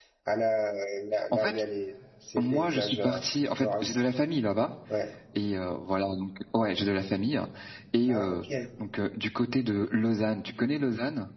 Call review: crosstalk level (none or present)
present